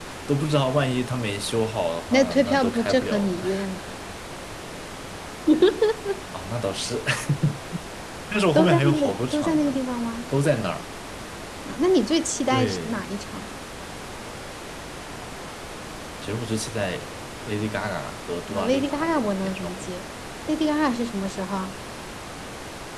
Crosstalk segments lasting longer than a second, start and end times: 2.1-3.4, 8.6-9.8, 18.5-19.9

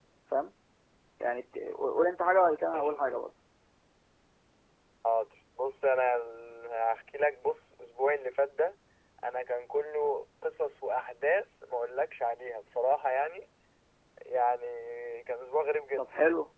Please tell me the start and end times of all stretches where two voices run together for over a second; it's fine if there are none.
none

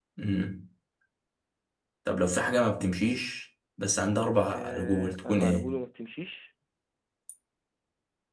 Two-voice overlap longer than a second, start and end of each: 4.5-5.8

